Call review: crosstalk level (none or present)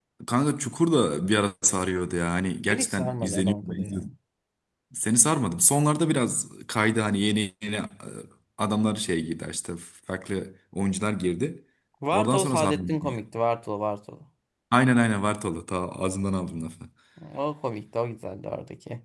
present